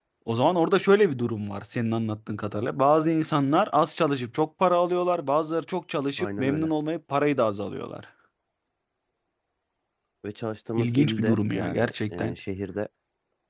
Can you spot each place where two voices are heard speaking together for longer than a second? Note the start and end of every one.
10.8-12.3

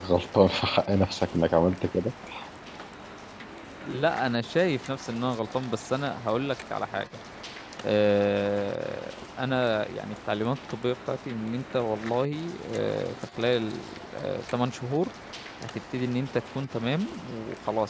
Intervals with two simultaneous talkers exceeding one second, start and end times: none

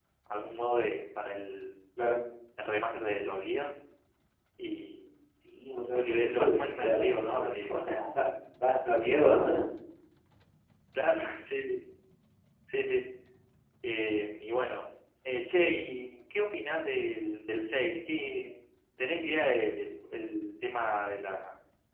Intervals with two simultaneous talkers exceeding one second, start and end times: 5.9-8.2

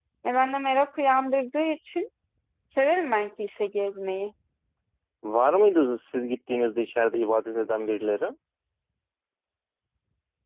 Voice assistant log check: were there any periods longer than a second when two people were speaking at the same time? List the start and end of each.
none

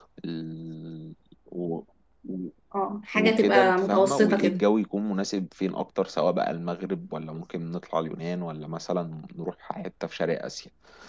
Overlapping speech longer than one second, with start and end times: 3.1-4.6

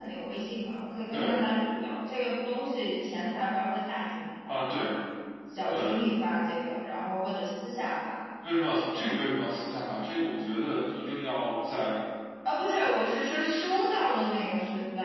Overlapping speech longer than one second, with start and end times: none

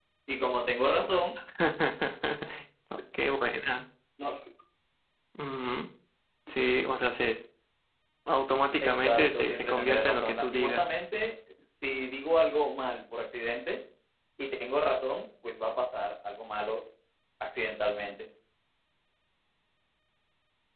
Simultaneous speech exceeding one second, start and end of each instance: 8.8-10.9

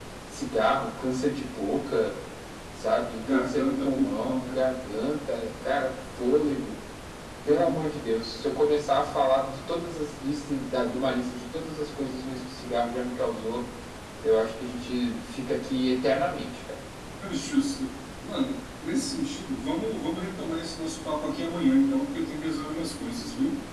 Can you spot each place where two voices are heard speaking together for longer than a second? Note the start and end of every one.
3.3-4.6

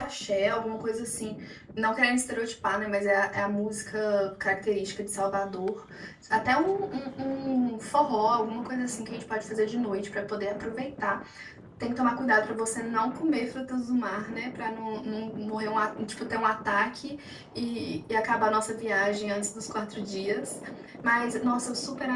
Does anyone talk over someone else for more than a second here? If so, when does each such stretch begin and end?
none

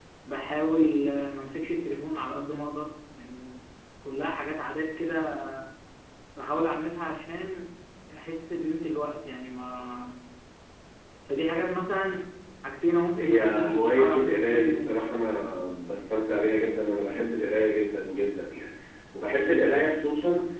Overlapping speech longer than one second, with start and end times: 13.2-14.9

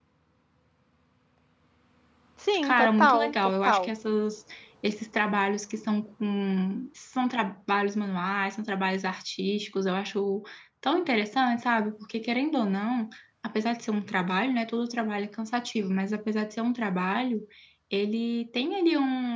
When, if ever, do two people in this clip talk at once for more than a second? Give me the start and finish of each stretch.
2.6-3.9

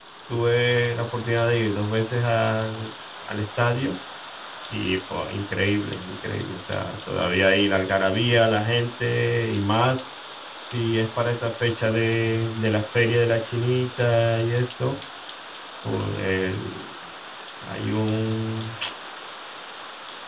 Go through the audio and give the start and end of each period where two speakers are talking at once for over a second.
none

